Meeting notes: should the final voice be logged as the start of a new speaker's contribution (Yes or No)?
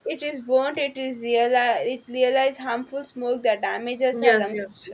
Yes